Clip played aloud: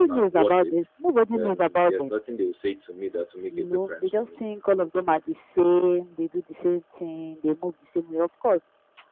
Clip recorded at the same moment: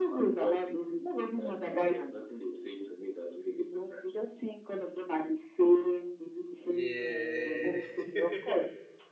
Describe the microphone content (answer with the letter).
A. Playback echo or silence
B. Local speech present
B